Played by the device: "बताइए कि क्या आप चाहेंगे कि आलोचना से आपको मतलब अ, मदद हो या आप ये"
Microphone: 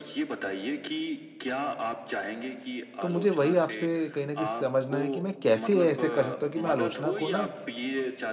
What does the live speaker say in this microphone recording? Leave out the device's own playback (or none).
तो मुझे वही आपसे कहीं न कहीं समझना है कि मैं कैसे ऐसे कर सकता हूँ कि मैं आलोचना को ना